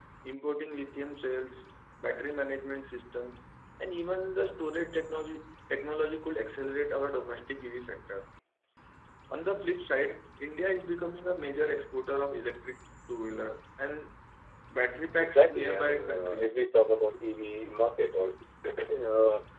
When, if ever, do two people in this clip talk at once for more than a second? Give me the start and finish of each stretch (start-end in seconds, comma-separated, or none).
15.2-16.5